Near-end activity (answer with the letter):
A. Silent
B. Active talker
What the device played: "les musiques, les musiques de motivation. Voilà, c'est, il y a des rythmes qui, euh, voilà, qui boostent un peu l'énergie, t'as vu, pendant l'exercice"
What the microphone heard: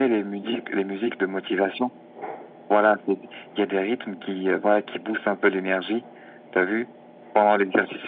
A